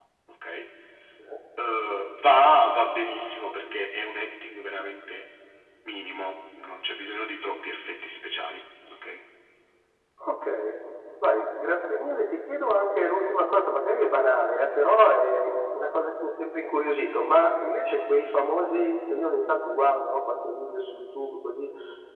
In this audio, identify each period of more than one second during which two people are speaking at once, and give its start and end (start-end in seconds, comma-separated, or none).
none